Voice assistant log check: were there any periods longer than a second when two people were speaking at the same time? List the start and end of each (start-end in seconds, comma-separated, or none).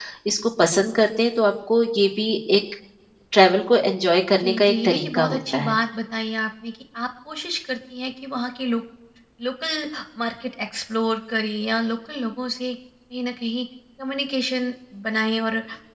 4.4-5.7